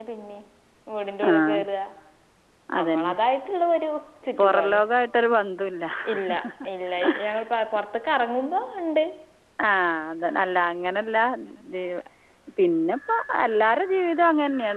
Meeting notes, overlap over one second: none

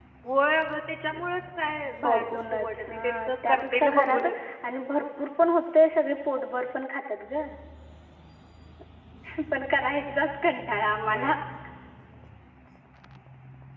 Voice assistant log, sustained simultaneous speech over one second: present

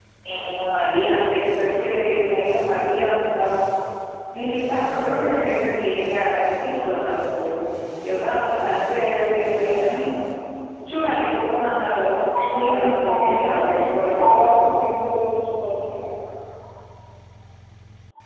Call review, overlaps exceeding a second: present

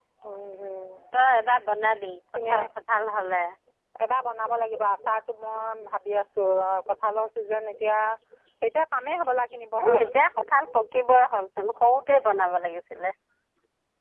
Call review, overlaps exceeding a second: none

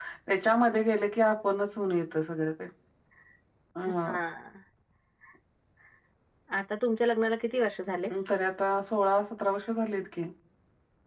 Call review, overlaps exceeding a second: none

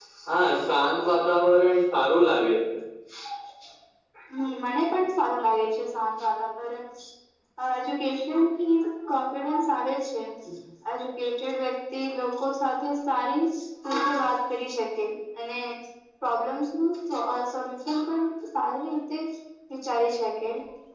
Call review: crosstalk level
none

